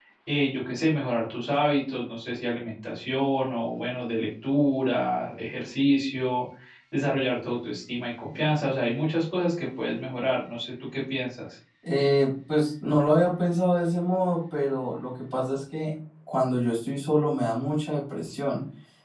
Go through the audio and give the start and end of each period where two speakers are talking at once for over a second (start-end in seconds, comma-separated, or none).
none